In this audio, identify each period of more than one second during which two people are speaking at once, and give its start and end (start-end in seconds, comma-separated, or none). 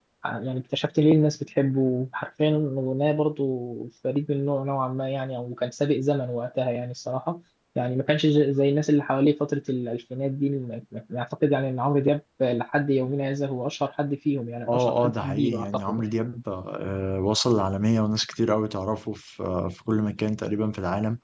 14.7-16.1